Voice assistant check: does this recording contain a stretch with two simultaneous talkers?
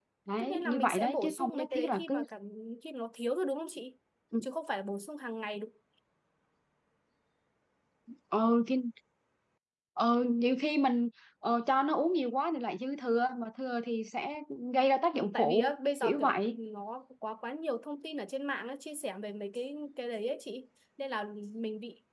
Yes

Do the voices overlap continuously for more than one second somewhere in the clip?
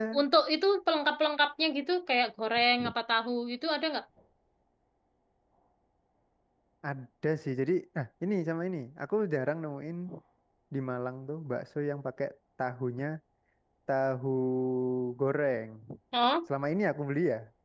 No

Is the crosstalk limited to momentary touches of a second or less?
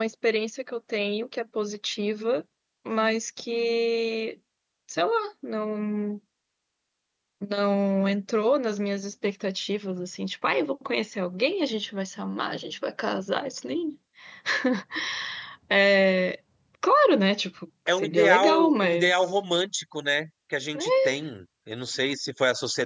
No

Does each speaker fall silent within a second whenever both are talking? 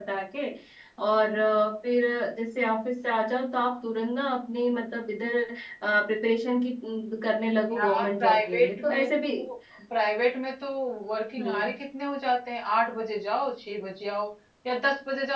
No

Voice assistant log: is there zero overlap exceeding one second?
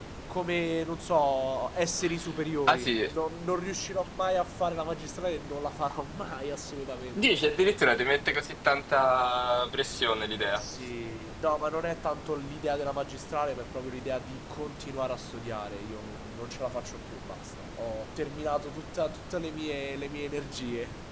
Yes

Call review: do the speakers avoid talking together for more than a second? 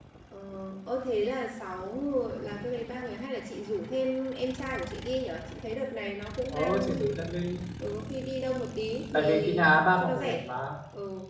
No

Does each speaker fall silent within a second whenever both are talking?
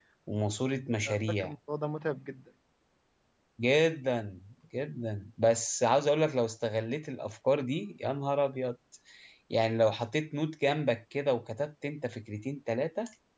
Yes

